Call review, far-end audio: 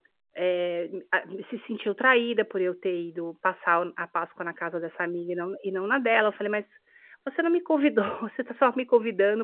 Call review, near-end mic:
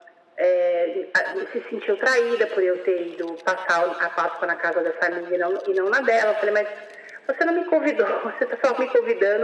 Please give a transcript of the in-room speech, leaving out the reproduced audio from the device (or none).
none